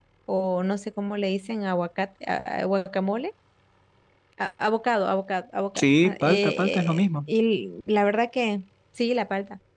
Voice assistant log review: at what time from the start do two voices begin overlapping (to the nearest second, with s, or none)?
6 s